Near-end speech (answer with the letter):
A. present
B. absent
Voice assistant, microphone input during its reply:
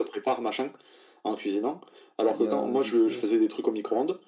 A